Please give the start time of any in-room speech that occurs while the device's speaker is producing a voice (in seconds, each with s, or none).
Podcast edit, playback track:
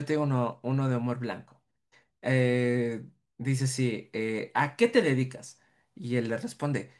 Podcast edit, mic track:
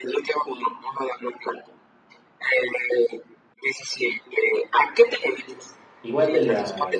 6.0 s